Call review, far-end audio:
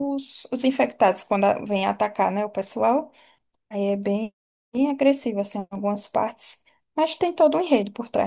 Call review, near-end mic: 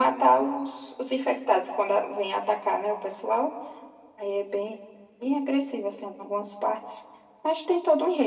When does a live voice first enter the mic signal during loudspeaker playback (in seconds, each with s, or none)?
none